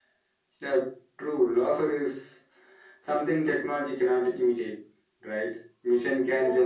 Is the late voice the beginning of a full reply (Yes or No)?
No